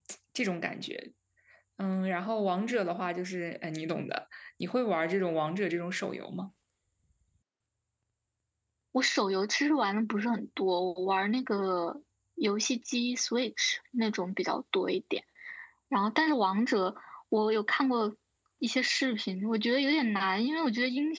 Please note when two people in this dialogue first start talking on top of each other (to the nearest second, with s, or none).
none